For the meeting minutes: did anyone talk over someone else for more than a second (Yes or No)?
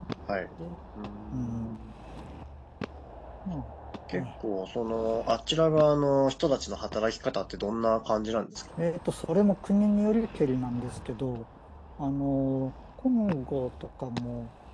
No